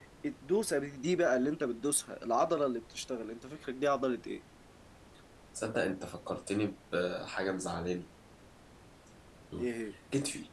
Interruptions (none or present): none